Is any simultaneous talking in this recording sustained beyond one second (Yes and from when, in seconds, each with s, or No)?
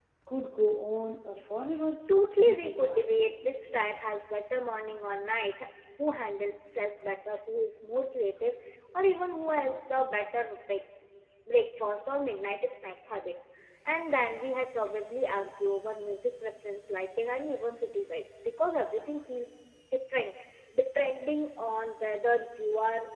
Yes, from 2.1 s